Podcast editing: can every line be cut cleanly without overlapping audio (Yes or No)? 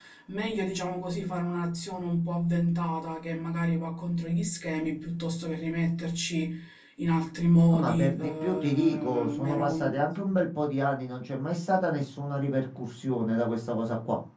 No